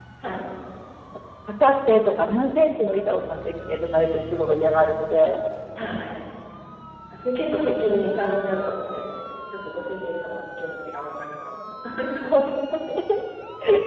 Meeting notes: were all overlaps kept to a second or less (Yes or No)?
Yes